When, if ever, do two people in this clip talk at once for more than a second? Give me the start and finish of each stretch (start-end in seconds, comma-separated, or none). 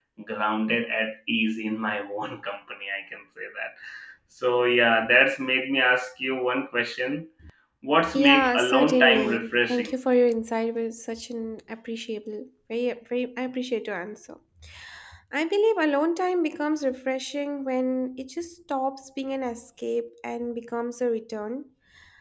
8.1-9.9